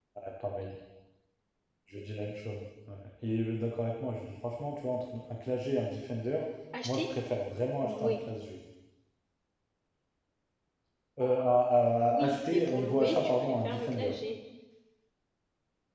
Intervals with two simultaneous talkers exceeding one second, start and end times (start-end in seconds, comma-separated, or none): 12.1-14.1